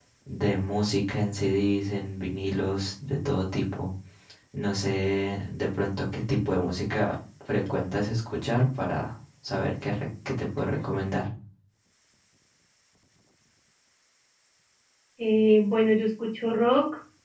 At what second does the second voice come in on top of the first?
none

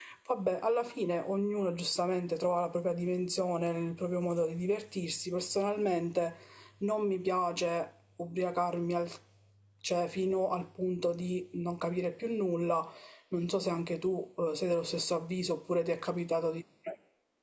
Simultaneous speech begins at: none

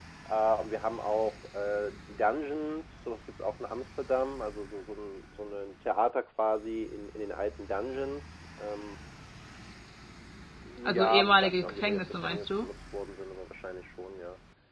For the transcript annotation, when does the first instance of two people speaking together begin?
10.8 s

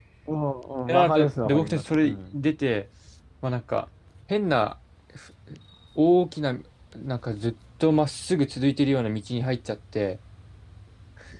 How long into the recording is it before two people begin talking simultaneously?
0.9 s

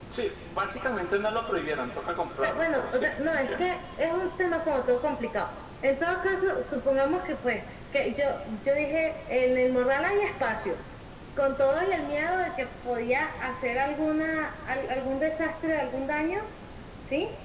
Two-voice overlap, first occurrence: 2.4 s

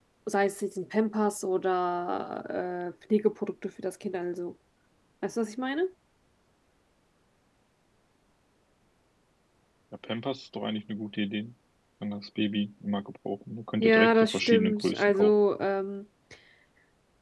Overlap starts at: 13.8 s

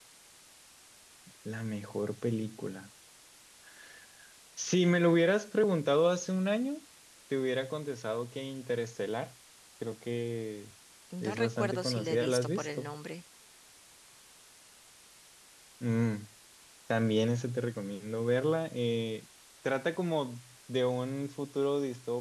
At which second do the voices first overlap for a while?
11.2 s

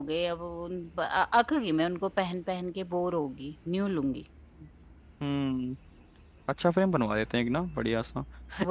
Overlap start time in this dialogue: none

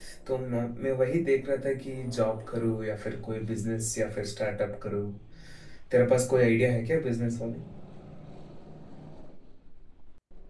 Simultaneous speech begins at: none

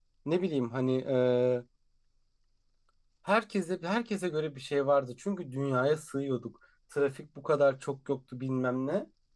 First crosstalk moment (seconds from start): none

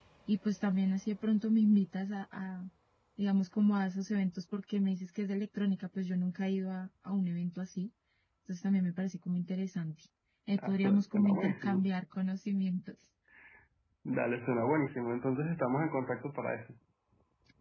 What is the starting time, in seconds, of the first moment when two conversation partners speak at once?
10.7 s

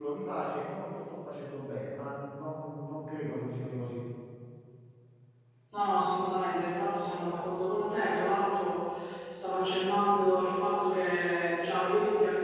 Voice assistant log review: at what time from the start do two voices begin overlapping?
none

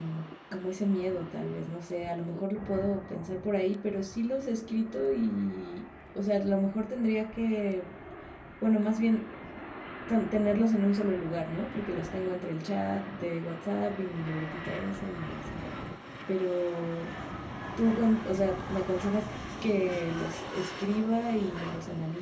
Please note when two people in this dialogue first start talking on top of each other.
none

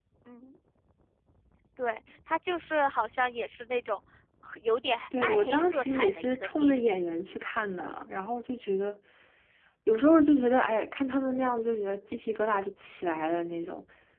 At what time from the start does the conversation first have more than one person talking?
5.2 s

